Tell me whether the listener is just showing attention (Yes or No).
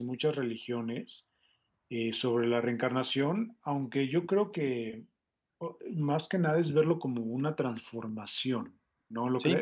No